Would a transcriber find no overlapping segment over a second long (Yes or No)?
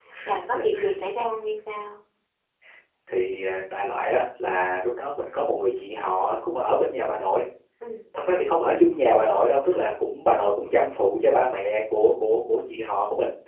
Yes